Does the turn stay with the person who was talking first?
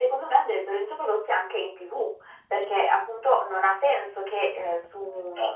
Yes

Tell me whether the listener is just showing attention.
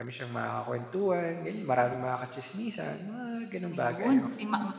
No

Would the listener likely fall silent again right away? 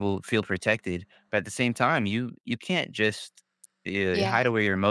Yes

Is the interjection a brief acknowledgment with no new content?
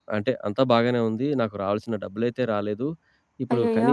Yes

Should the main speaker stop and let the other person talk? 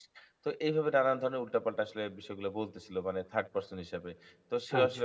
No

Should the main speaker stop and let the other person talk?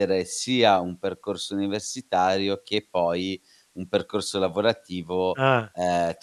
No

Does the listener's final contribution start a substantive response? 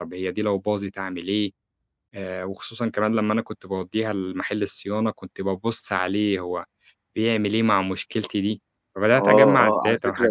Yes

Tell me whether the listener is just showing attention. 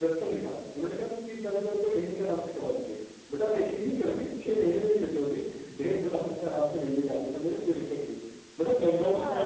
Yes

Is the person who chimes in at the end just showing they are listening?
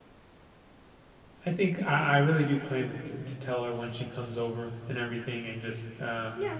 No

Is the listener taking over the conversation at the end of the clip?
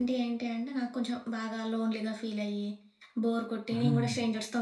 No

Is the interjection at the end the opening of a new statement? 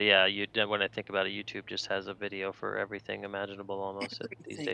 Yes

